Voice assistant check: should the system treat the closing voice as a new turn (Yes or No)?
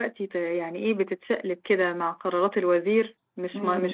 No